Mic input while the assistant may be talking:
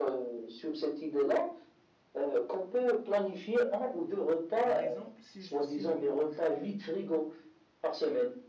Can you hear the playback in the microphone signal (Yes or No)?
Yes